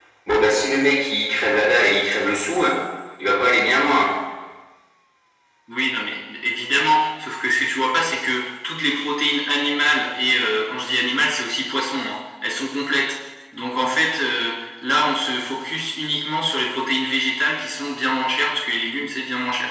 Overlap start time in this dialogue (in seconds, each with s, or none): none